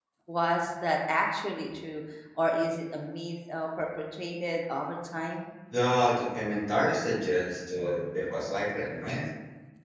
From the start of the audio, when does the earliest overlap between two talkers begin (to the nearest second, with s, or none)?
none